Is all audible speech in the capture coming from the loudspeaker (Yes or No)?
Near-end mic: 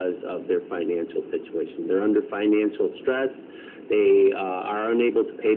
Yes